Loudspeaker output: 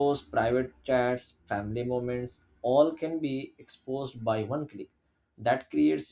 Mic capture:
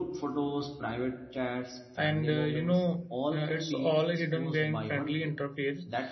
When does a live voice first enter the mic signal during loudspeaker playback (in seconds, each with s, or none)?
1.9 s